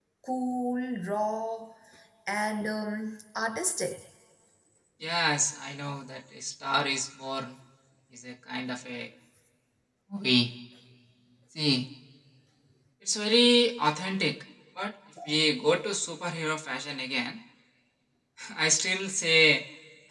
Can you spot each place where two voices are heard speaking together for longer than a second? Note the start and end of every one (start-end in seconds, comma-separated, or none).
none